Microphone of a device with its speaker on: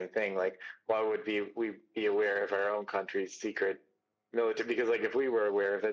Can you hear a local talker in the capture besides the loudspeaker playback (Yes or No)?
No